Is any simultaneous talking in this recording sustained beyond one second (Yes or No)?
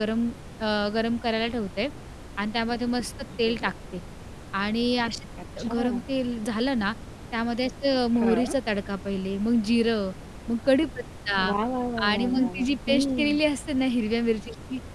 Yes